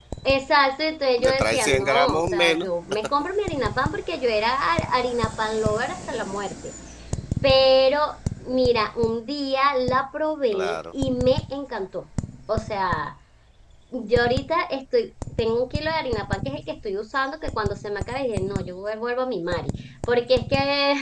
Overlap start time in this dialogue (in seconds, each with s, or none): 1.2 s